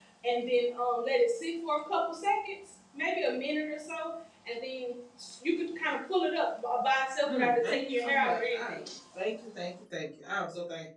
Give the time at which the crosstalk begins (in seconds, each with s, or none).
7.3 s